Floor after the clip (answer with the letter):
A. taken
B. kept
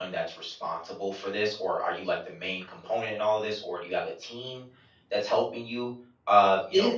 B